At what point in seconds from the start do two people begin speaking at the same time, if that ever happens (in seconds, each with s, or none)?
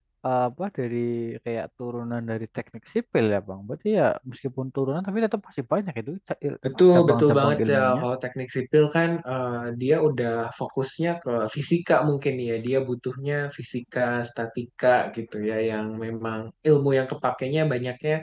6.6 s